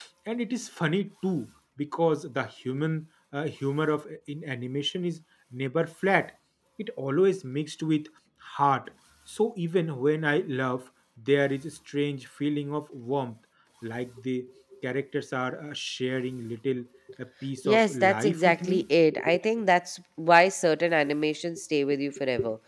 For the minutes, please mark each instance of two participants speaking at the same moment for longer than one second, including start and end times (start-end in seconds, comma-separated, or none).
17.6-18.8